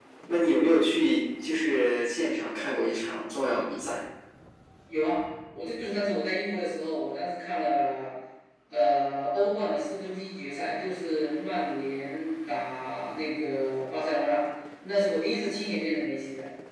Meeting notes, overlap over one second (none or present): none